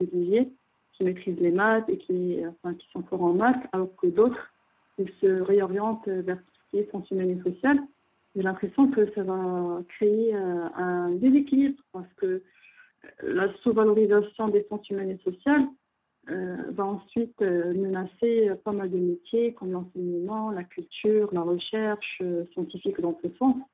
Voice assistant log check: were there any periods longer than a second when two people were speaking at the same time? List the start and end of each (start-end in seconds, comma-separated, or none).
none